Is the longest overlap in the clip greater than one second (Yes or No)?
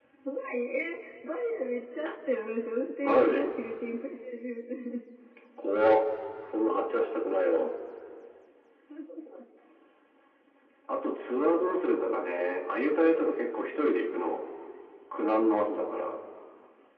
No